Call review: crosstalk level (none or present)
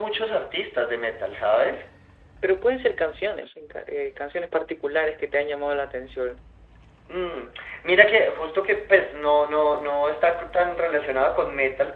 none